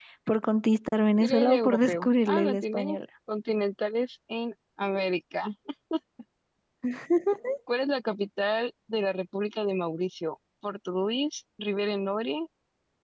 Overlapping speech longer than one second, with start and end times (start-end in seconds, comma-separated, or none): 1.2-2.9